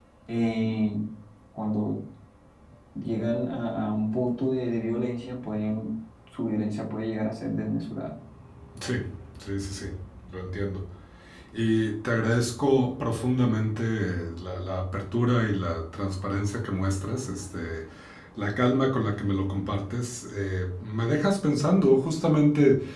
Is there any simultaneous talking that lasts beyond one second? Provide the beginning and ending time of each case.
none

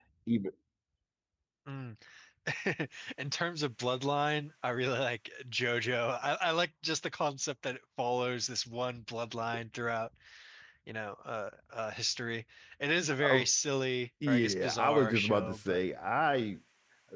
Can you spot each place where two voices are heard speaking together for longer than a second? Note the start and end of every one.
14.3-15.8

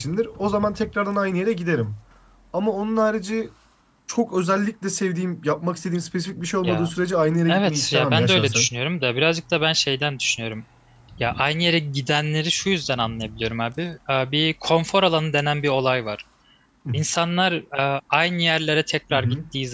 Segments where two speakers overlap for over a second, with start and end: 7.5-8.7

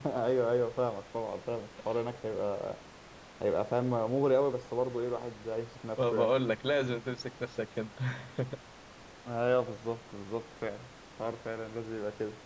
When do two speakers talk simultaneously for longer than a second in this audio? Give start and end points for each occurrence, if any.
none

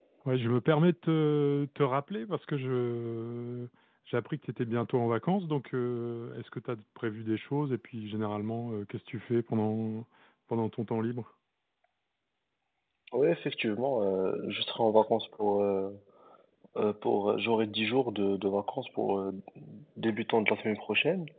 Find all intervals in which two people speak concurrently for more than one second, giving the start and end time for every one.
none

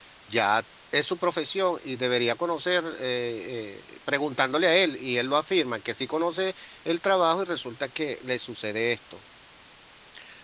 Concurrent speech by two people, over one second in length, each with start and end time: none

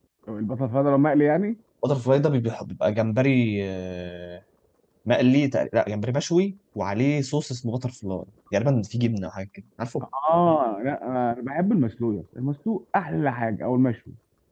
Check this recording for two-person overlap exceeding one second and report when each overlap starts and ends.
none

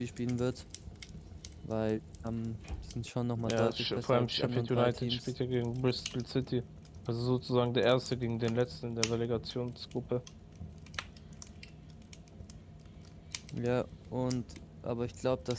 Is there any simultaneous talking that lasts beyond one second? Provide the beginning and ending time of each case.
3.4-5.3

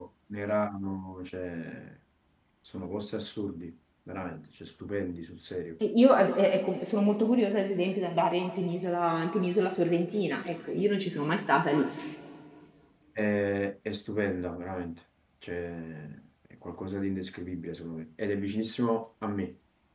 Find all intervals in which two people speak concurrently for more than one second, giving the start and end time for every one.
none

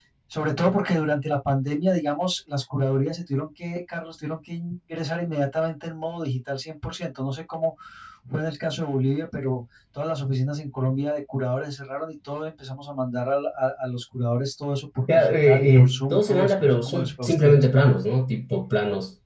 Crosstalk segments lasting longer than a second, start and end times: 15.2-17.6

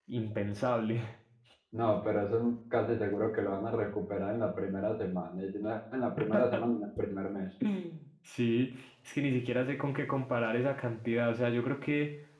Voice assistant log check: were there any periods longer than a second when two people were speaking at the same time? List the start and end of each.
none

